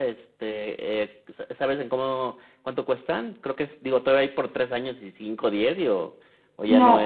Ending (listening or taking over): taking over